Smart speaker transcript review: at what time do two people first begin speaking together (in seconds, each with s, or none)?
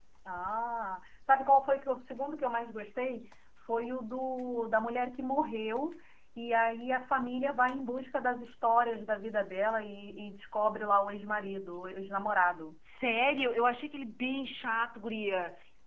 none